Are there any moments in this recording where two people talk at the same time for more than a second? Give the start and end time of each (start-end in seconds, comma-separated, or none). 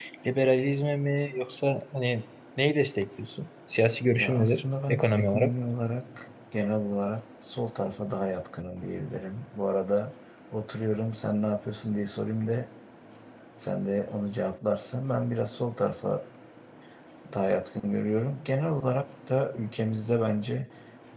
4.2-5.5